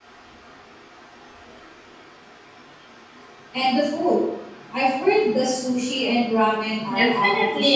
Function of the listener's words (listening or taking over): taking over